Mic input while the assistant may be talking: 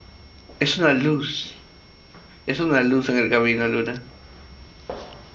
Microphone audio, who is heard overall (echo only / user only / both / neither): user only